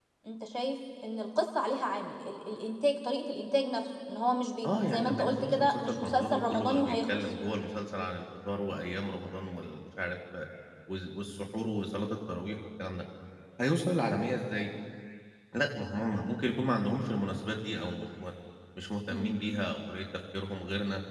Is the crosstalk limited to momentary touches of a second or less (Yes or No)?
No